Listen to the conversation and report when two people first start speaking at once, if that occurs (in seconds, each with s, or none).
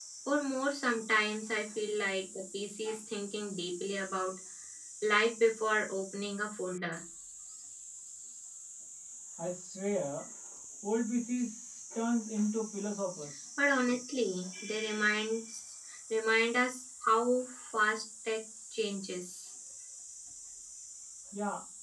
none